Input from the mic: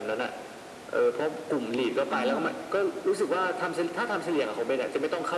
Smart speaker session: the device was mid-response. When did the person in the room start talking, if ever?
2 s

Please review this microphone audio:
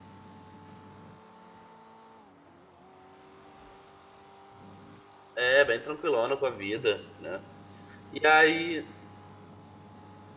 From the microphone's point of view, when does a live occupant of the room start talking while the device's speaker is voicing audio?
5 s

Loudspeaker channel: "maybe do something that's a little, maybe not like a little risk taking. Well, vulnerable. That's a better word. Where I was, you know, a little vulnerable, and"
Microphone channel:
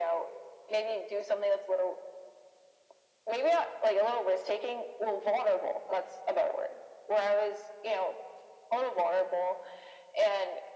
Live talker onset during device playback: none

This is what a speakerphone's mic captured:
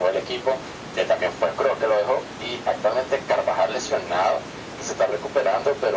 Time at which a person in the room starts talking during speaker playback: none

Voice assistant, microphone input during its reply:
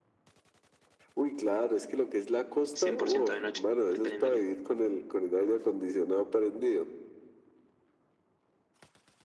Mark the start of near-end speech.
3 s

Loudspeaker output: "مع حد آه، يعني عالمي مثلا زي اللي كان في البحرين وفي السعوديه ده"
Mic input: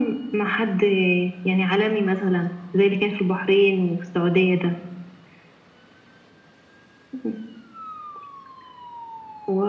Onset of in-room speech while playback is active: none

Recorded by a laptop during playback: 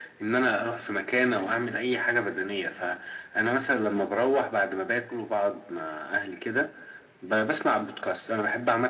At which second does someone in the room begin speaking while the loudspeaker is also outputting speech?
none

